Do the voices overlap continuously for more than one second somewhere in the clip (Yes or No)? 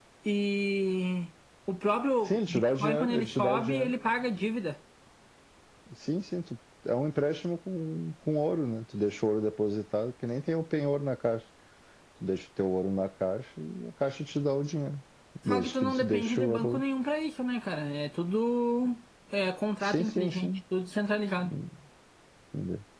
Yes